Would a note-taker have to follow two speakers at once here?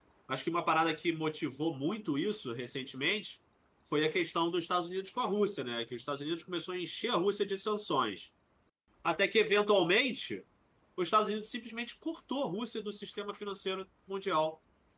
No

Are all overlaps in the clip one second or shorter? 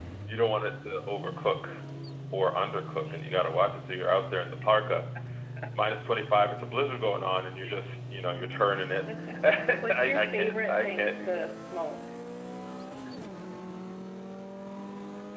No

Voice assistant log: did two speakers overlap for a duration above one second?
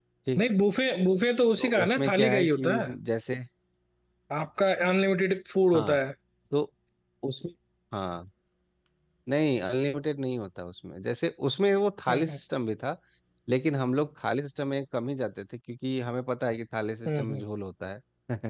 Yes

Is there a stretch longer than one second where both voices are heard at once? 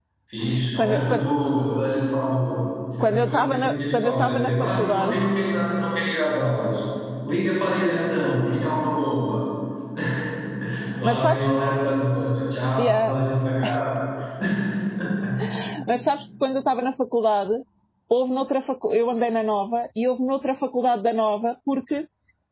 Yes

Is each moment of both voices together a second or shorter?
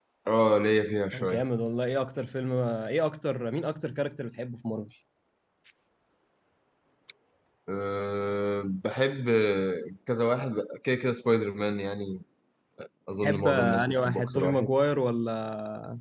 No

